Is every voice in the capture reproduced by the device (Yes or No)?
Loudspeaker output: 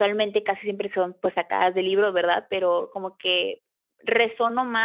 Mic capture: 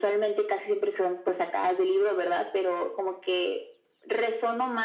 Yes